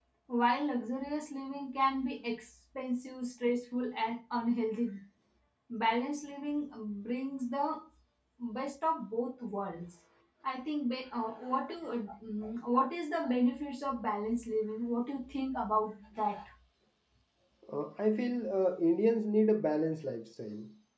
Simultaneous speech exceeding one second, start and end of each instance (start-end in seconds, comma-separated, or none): none